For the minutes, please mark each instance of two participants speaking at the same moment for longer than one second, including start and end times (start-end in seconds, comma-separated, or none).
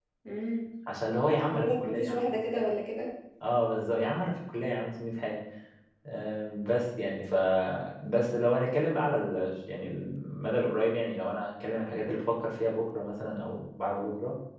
1.4-2.6